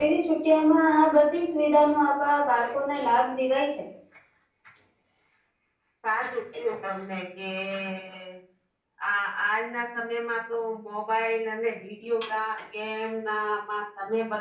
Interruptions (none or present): none